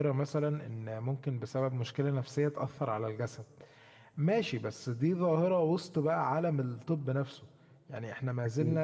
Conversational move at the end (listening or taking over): listening